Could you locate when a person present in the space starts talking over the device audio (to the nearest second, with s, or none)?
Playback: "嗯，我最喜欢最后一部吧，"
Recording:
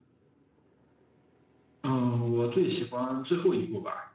none